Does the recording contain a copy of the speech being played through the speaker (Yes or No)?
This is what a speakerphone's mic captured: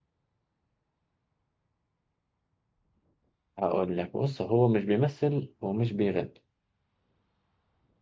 No